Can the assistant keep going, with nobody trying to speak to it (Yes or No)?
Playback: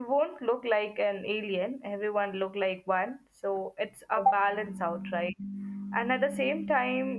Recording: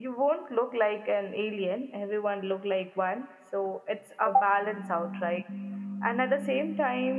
Yes